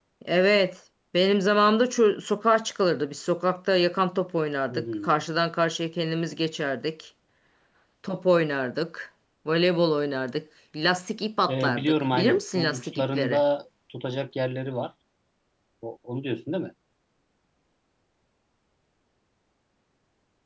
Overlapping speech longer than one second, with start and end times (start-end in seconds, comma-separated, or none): 11.5-13.4